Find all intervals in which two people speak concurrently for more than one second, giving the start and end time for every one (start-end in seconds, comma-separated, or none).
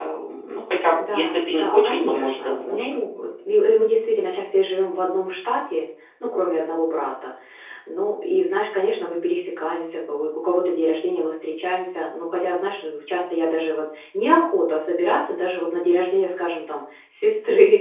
1.1-3.0